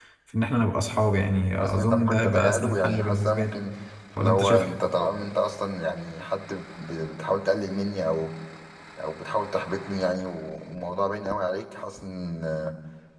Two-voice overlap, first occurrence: 1.6 s

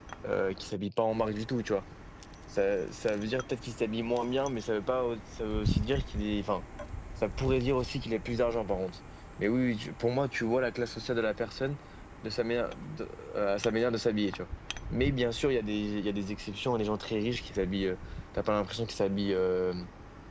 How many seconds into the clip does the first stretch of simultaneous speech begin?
none

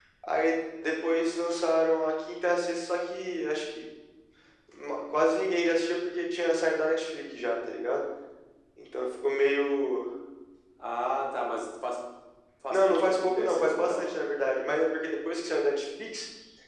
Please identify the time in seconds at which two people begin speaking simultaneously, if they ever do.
12.7 s

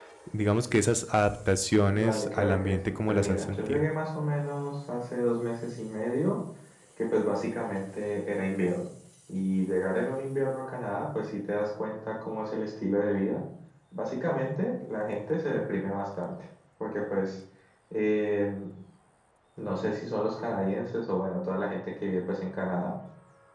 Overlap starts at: 1.9 s

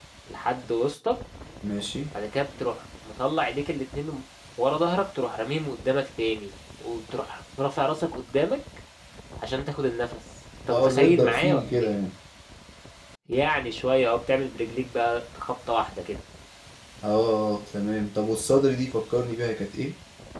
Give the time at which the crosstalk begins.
10.7 s

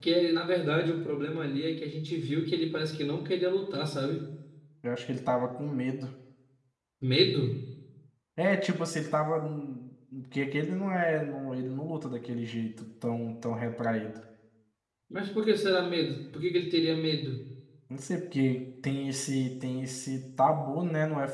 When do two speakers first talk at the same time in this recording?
none

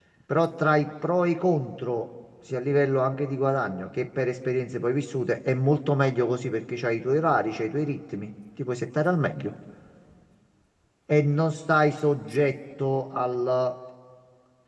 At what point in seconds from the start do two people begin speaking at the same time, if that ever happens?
none

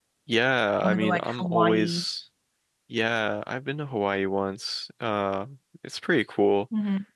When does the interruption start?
0.8 s

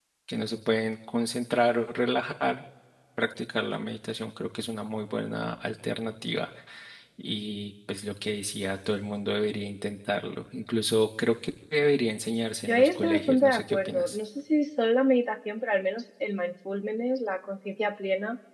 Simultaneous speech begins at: 12.7 s

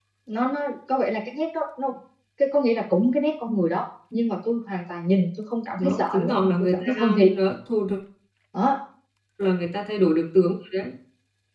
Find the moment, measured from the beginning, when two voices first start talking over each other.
5.8 s

